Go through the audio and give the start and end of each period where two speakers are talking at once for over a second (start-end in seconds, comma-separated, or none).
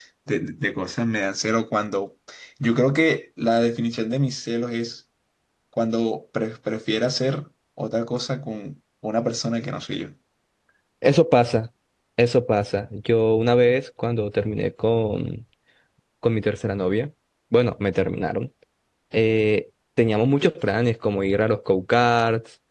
none